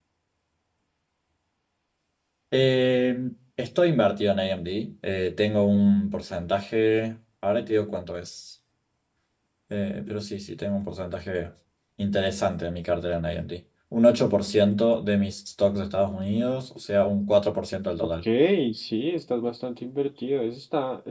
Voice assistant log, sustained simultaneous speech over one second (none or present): none